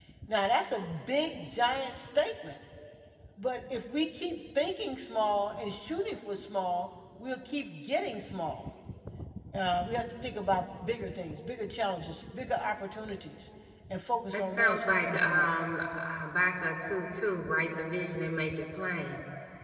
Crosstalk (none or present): present